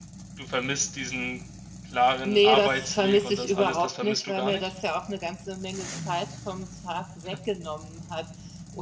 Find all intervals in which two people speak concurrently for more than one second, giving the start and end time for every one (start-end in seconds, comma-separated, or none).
2.2-4.7